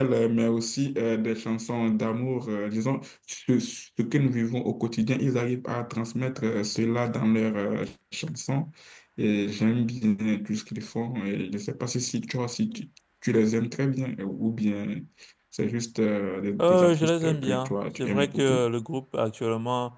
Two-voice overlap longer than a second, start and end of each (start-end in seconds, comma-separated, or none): 16.6-18.6